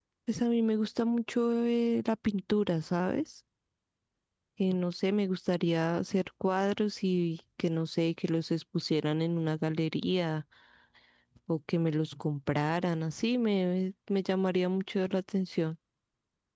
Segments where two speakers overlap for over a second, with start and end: none

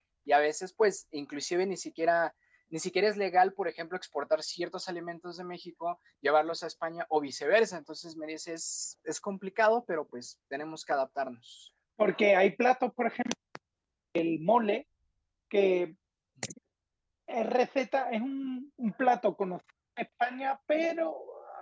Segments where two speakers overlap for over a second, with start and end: none

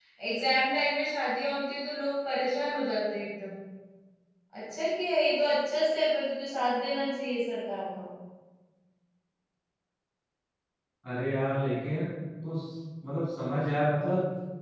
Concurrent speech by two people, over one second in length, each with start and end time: none

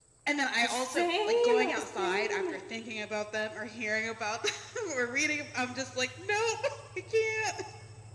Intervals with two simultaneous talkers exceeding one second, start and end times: 0.6-2.4

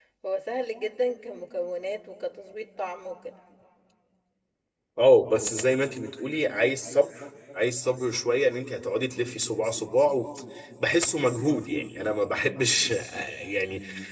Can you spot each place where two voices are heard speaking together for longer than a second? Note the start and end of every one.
none

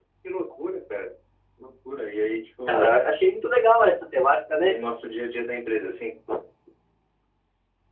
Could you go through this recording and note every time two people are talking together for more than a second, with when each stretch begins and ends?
none

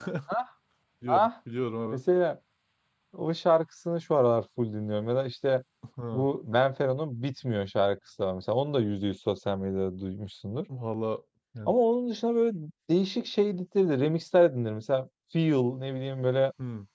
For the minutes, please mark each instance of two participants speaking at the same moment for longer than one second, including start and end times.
none

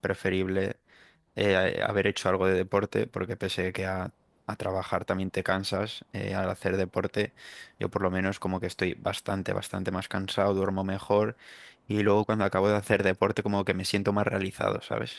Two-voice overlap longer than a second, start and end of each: none

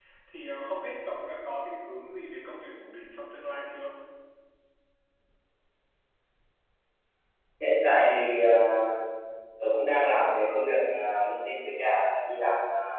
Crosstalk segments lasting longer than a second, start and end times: none

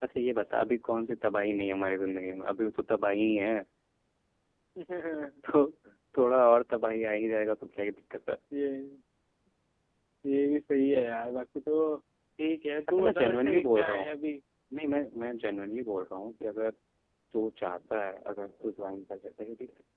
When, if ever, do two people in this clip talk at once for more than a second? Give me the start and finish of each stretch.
12.9-14.1

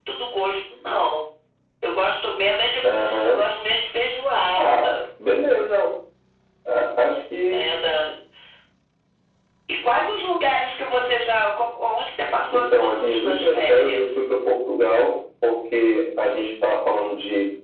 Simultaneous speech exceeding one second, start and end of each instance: 12.5-14.2

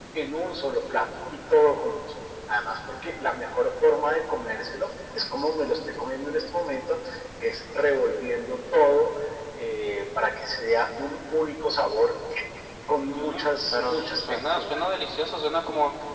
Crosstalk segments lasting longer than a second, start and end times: 13.1-14.8

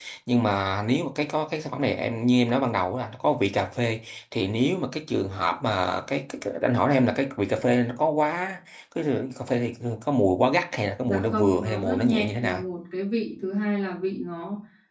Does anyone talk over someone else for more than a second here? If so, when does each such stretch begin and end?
11.0-12.6

